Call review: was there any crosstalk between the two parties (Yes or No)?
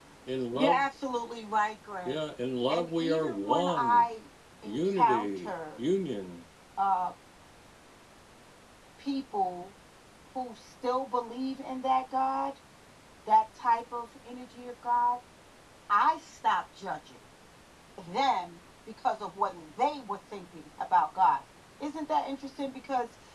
Yes